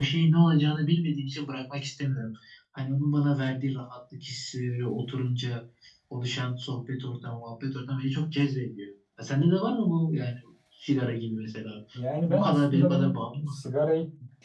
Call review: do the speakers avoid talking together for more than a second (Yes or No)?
No